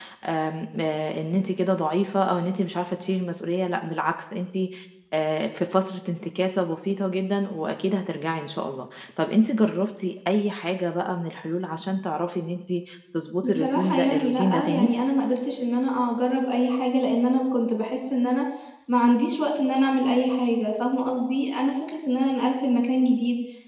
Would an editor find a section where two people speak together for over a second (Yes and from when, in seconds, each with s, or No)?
Yes, from 13.4 s